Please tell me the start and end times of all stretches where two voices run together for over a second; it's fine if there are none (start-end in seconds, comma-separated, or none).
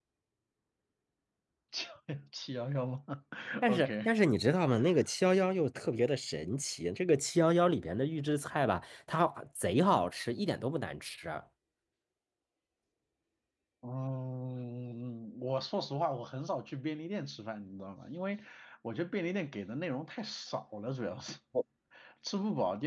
none